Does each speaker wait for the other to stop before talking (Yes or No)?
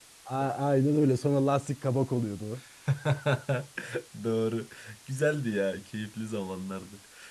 Yes